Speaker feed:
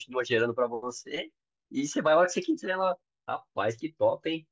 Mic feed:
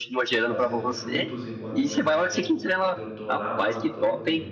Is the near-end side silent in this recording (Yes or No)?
No